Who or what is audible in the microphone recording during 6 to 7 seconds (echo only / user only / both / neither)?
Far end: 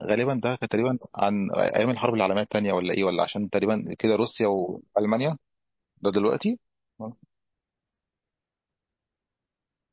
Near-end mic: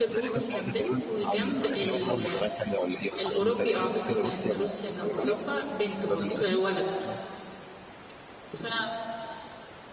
both